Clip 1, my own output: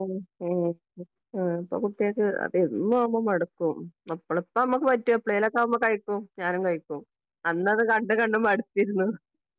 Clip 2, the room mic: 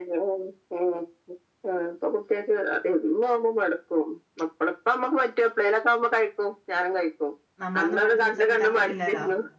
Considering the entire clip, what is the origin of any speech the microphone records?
both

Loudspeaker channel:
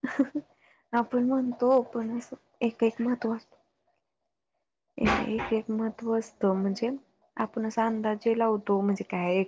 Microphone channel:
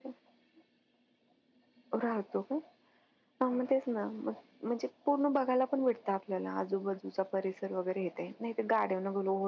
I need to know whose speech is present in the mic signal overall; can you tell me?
user only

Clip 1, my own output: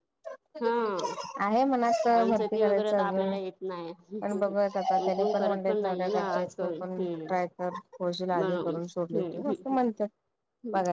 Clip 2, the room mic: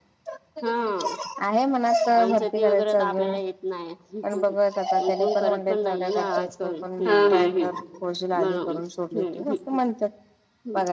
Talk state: both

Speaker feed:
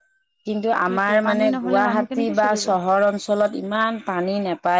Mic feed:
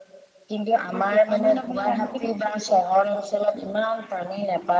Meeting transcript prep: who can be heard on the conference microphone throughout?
echo only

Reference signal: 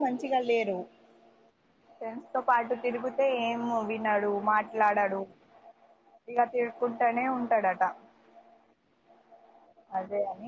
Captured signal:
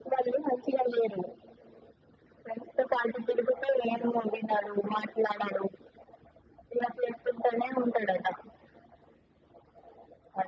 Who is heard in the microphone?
echo only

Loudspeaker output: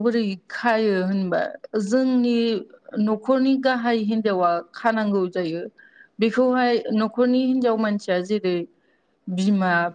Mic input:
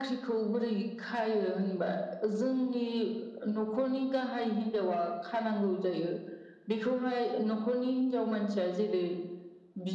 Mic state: echo only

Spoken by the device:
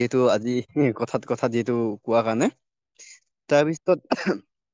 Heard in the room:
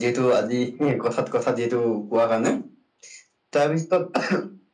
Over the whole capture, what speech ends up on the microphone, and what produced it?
echo only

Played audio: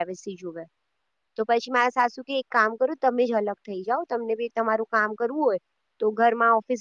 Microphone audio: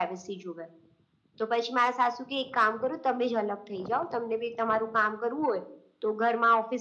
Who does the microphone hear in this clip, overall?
echo only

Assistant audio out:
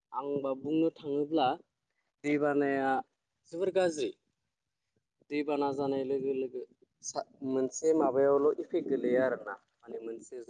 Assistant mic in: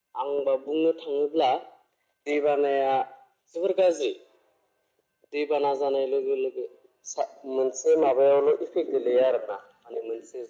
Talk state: echo only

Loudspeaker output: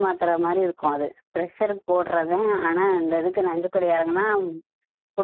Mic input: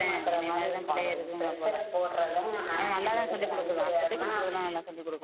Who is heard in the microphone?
both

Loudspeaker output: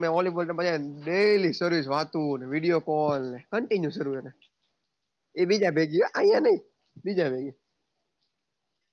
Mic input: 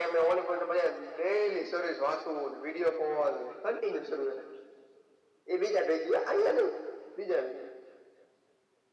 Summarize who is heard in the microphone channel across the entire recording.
echo only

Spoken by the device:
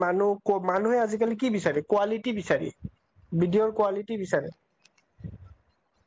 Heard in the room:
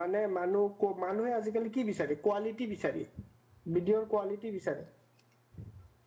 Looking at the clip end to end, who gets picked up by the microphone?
echo only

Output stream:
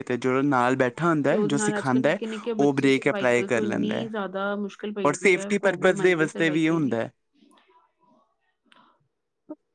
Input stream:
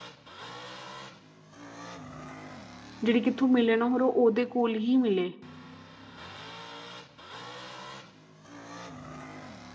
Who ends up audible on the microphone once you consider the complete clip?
user only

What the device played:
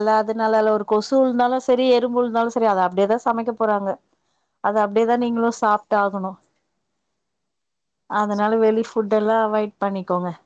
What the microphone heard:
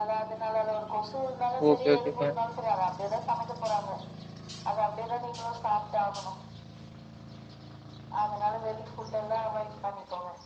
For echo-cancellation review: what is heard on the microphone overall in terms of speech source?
both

